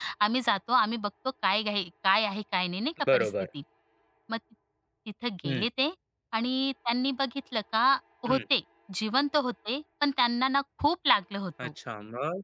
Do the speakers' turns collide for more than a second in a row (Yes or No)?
No